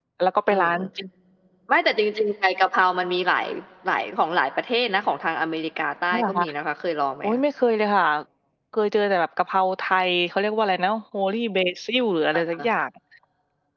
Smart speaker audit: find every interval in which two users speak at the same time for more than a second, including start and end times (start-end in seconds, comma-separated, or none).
none